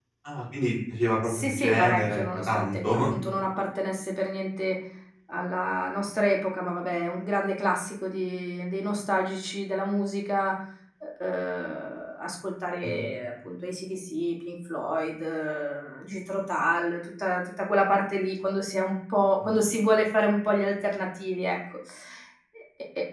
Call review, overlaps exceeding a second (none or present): present